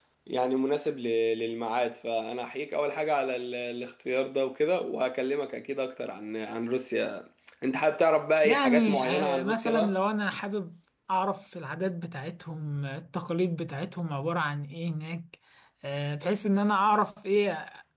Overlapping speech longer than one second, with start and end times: 8.4-10.0

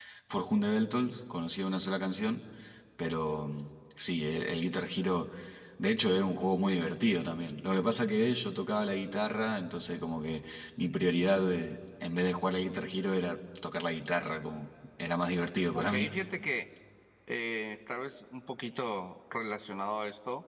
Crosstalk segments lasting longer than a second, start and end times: none

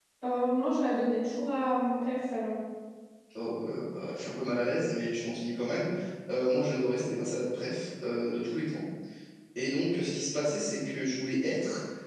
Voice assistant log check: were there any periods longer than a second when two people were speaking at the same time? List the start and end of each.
none

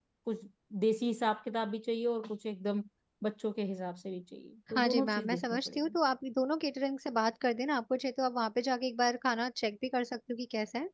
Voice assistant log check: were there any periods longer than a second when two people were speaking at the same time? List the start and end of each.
4.7-6.0

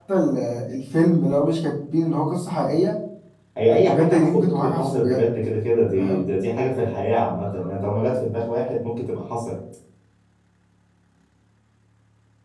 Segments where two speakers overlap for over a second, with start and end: 3.7-5.2

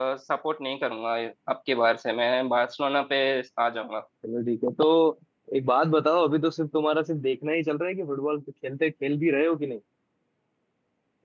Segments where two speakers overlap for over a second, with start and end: none

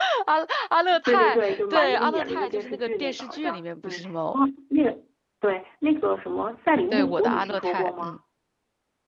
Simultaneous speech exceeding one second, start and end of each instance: 1.1-4.4, 6.9-8.2

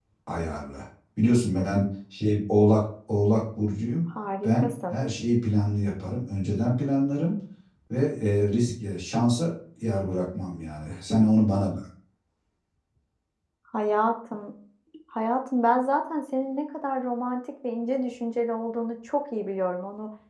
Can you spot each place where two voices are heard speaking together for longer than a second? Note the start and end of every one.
none

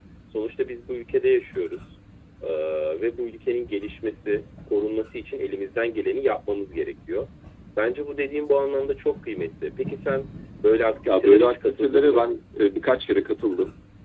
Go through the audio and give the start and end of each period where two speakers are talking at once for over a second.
11.1-12.3

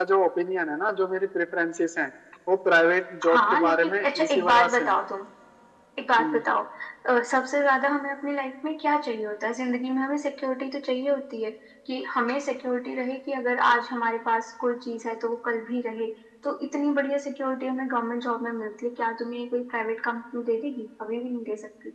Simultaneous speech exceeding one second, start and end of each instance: 3.3-5.0

